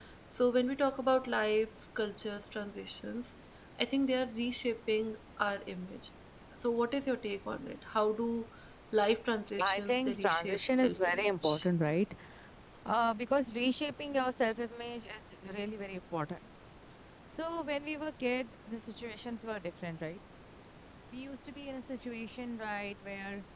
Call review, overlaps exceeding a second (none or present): present